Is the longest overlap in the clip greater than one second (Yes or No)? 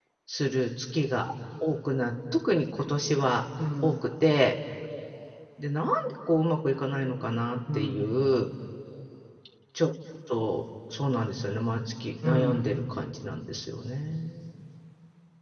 No